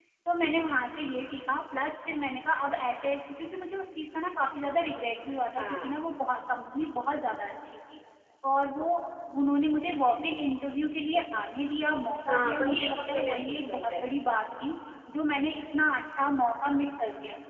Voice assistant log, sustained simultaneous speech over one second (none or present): present